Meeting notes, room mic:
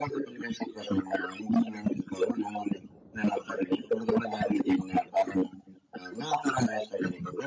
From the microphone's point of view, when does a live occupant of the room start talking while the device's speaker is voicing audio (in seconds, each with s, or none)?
none